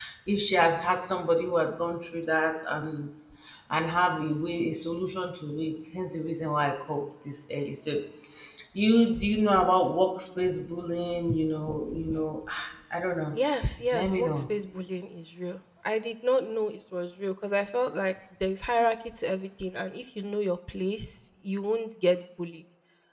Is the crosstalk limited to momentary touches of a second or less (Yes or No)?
Yes